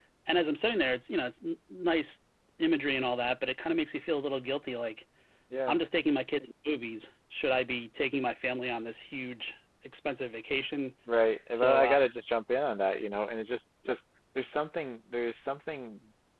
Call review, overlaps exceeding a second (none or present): none